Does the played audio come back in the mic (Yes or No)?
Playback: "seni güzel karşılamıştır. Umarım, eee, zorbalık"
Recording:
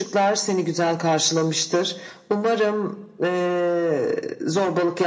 Yes